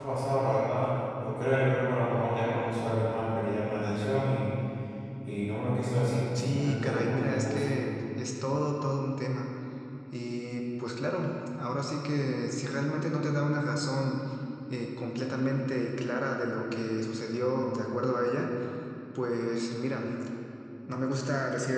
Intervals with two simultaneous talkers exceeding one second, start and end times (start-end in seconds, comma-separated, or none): 6.3-7.7